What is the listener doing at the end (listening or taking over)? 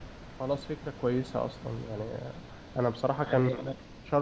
listening